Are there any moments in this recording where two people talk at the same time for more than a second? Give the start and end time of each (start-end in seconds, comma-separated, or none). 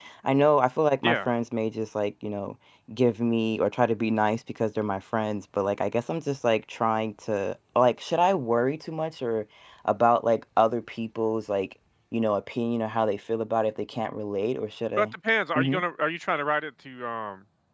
none